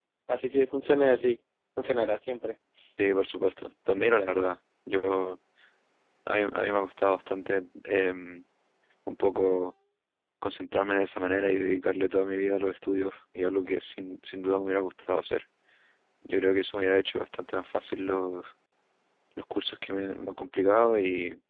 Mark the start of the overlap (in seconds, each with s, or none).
none